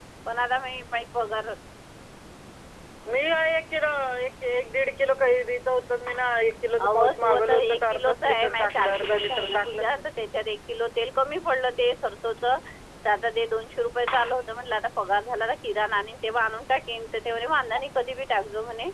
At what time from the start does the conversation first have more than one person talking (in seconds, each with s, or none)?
6.8 s